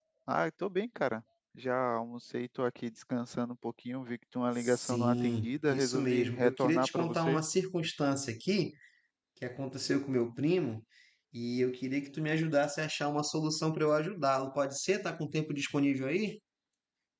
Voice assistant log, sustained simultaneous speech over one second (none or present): present